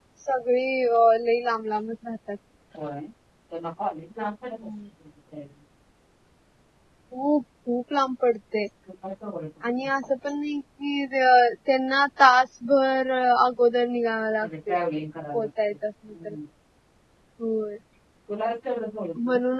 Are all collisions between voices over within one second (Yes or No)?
Yes